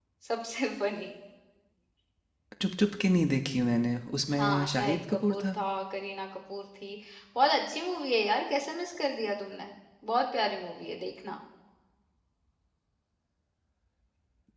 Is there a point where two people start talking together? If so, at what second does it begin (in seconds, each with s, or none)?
4.3 s